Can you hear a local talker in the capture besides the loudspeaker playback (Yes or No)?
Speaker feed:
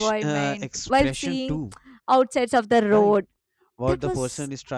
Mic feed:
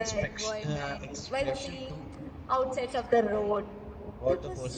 No